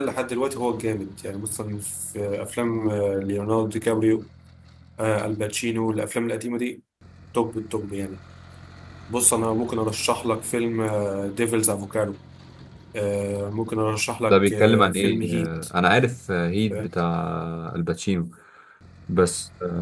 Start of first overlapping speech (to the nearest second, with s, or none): 14 s